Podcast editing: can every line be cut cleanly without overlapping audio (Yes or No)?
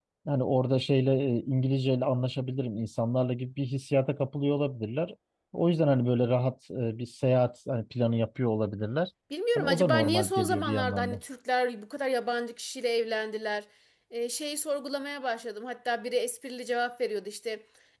No